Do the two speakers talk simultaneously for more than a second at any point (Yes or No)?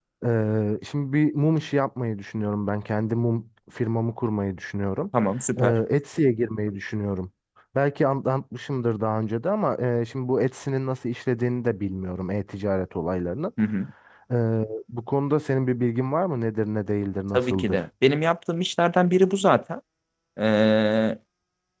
No